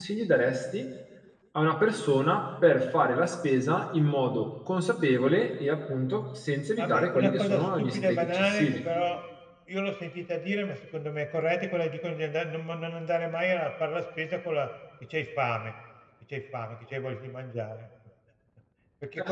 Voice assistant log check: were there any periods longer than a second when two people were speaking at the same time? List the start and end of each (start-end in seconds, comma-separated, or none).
6.8-8.8